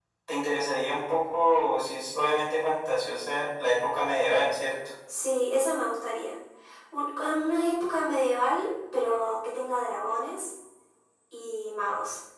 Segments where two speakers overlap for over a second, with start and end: none

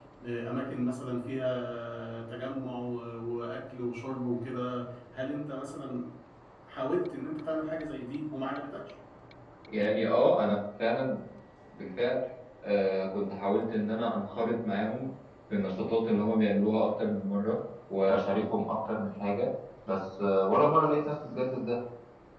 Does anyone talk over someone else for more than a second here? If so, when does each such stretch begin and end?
none

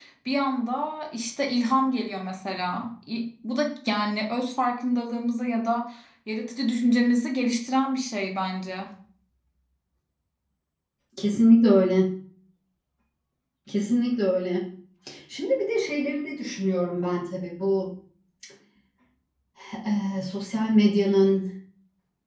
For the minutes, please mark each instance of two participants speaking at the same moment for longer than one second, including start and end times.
none

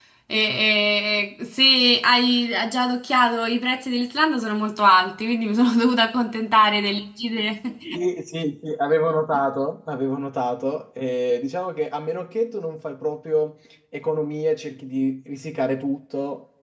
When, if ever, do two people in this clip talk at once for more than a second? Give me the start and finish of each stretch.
none

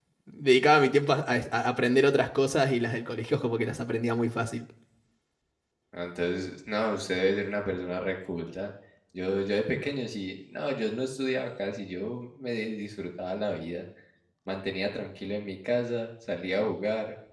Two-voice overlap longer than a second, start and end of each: none

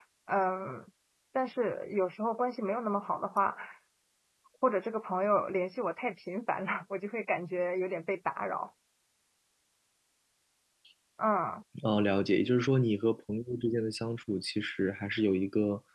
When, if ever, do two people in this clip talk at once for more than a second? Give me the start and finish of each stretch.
none

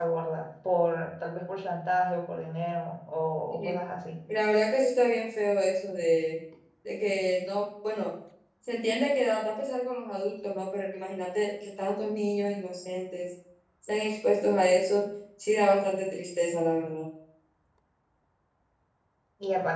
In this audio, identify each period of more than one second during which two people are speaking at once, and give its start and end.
none

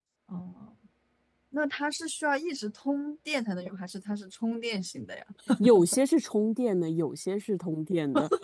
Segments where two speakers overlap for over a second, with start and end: none

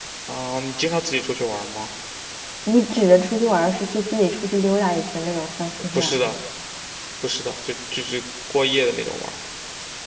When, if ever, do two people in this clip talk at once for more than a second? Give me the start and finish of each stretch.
none

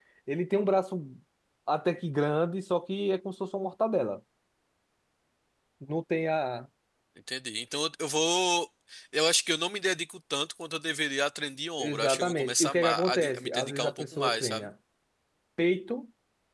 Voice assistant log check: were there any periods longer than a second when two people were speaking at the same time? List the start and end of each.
11.8-14.6

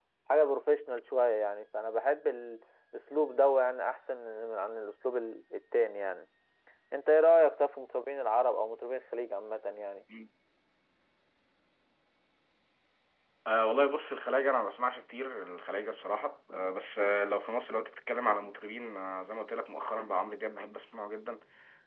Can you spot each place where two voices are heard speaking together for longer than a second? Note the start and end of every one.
none

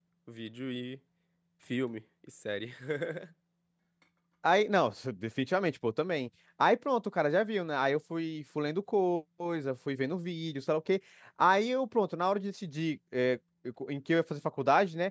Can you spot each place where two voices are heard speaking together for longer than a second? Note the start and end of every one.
none

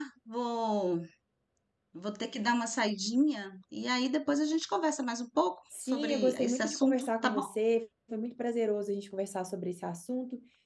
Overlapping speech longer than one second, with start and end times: 5.9-7.5

